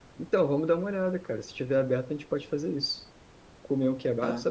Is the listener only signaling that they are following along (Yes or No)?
Yes